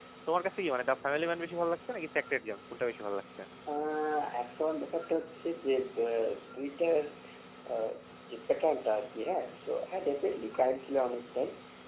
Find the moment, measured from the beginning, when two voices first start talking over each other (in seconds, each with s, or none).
none